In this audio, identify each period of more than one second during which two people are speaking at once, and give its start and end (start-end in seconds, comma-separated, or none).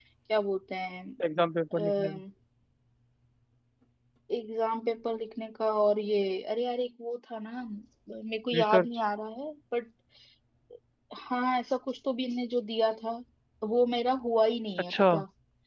none